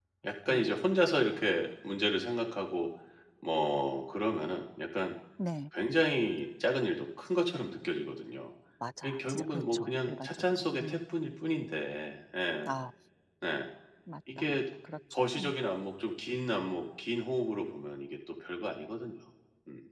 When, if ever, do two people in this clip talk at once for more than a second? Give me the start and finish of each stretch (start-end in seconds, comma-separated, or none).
9.0-11.0